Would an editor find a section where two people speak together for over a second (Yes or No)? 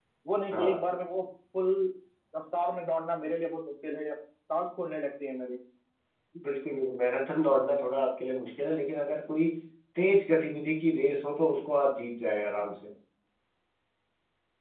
No